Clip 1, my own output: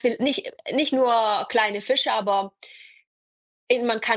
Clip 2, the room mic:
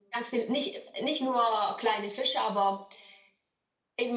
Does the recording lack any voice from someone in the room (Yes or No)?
Yes